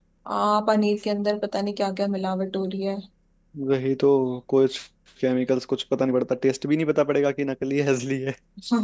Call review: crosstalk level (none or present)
none